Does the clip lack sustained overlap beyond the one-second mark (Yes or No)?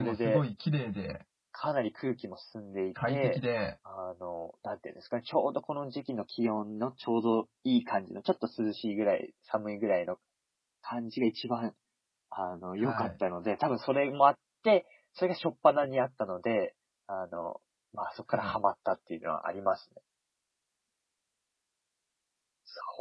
Yes